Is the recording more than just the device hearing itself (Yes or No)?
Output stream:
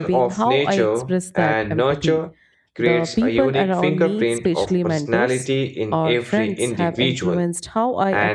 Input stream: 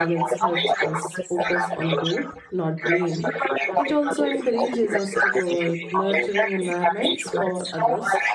Yes